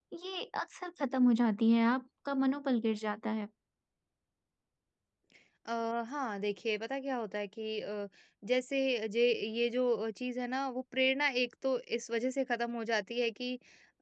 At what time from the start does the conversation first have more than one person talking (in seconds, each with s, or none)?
none